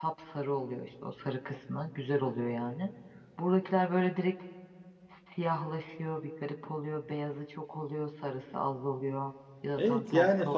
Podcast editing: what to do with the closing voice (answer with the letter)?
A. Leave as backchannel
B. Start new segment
B